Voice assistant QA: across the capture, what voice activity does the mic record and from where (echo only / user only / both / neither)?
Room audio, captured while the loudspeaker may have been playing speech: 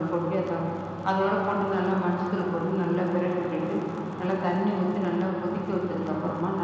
echo only